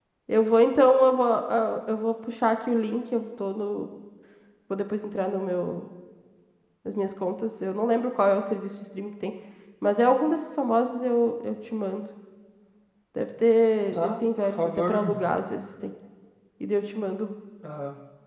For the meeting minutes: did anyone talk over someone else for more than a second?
Yes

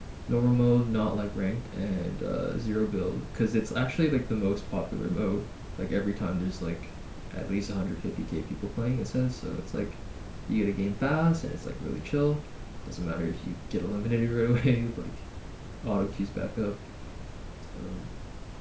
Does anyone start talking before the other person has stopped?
No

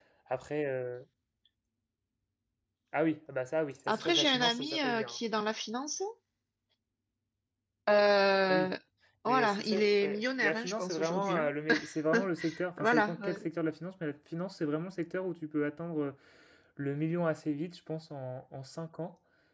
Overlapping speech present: Yes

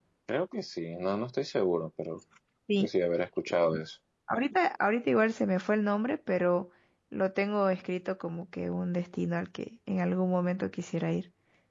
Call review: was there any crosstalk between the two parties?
No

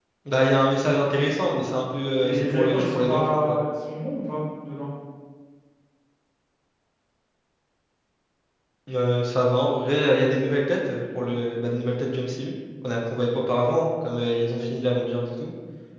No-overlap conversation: No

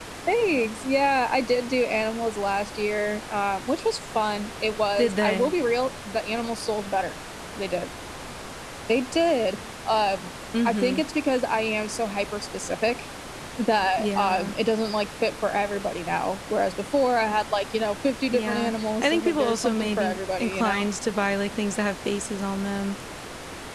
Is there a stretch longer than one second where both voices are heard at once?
Yes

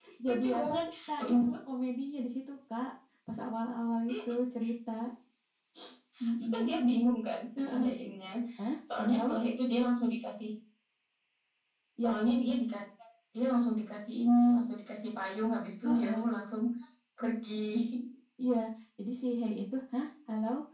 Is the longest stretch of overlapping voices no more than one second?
No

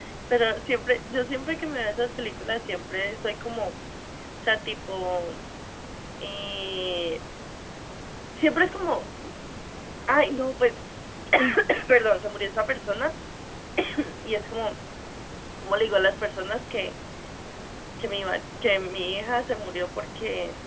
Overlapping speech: No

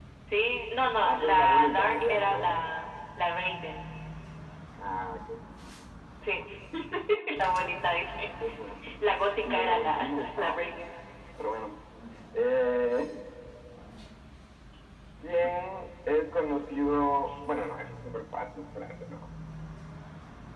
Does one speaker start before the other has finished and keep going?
Yes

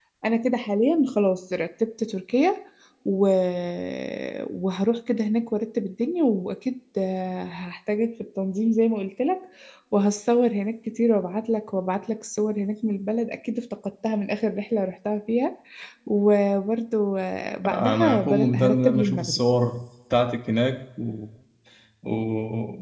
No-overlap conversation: No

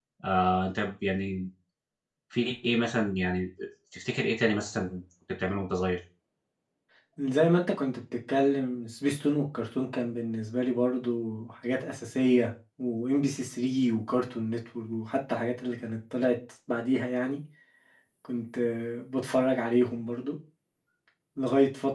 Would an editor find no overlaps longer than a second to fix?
Yes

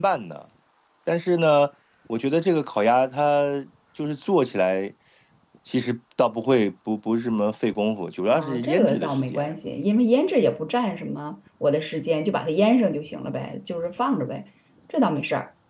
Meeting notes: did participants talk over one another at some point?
Yes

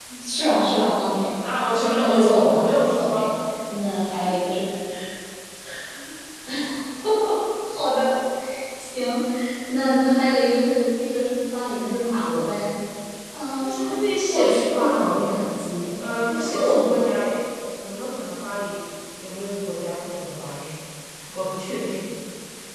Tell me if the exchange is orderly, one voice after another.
No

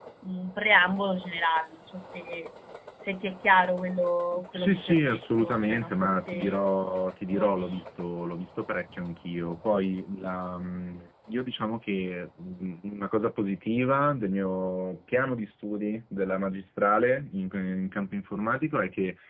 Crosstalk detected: Yes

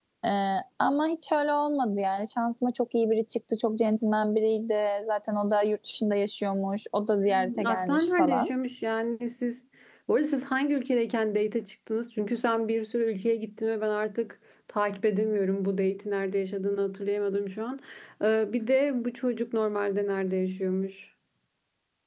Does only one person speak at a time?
No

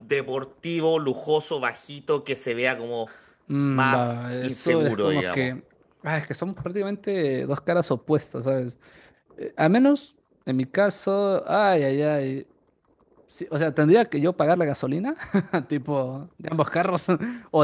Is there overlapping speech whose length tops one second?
Yes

